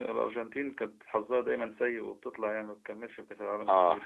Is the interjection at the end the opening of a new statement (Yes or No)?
Yes